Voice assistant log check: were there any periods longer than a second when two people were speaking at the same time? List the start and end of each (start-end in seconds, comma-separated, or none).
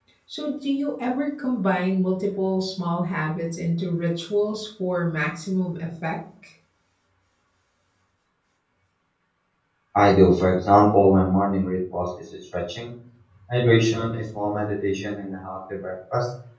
none